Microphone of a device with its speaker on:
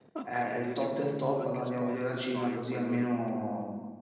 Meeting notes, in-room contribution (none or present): present